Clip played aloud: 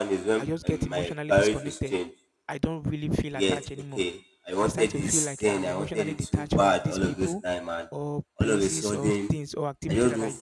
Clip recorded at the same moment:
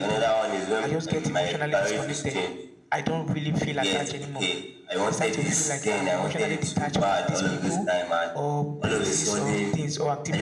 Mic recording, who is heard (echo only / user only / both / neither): echo only